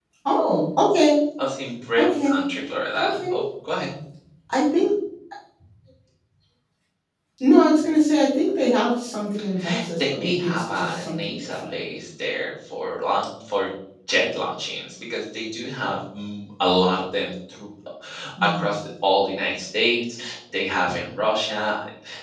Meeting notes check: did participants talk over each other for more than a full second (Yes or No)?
Yes